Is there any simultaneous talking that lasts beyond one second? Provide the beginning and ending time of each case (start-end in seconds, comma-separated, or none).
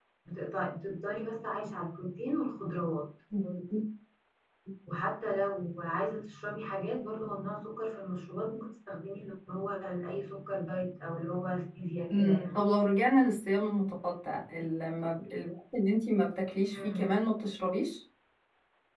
none